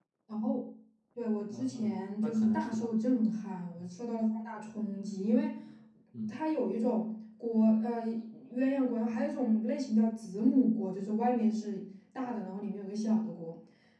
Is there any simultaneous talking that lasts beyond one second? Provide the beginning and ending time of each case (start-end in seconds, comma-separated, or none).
1.5-2.9